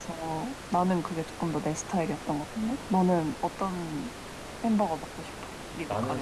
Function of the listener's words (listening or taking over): taking over